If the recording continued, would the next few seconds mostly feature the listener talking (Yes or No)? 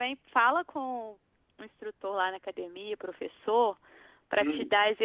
No